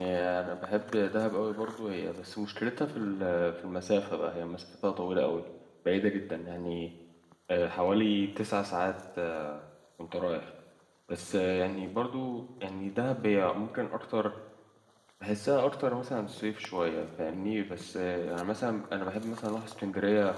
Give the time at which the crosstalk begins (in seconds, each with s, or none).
none